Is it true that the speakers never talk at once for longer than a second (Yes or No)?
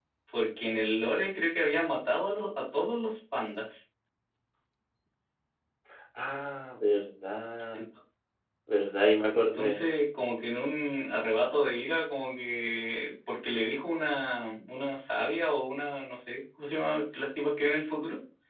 Yes